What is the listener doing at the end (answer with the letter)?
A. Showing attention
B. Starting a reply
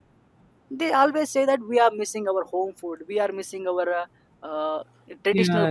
B